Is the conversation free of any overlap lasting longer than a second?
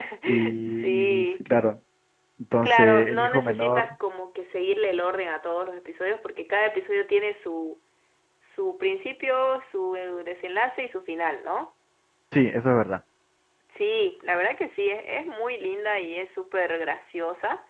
No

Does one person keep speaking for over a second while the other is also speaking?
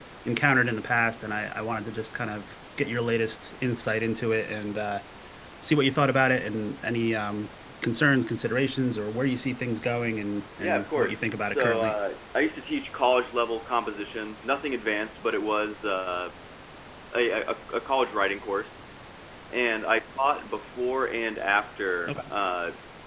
Yes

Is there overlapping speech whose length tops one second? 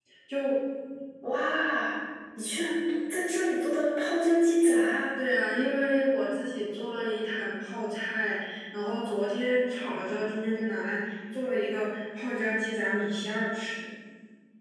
No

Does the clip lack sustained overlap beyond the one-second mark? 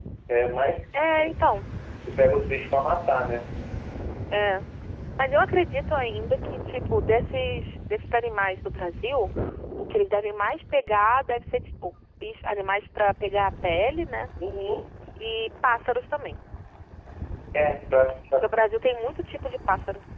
Yes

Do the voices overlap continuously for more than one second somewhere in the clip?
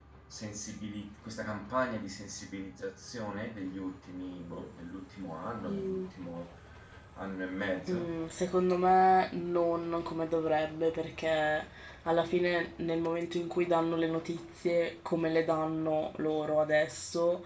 No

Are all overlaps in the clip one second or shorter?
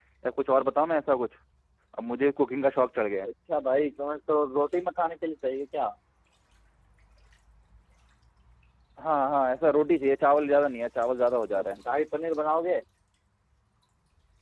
Yes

